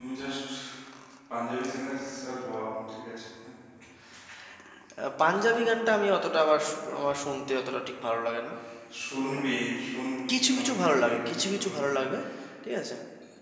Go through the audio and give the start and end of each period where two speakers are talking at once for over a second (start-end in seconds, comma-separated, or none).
10.3-11.9